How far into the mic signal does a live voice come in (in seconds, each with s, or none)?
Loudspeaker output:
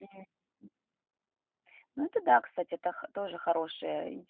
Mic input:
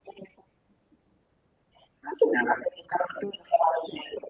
none